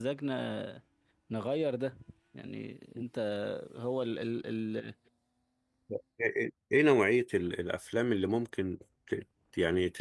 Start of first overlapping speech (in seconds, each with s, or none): none